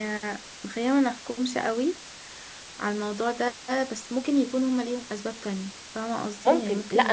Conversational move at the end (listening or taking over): taking over